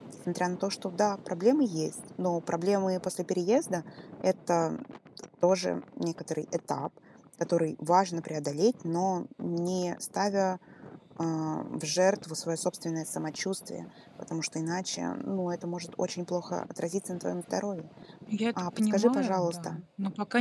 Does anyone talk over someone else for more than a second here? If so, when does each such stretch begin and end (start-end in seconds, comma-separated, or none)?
18.6-19.8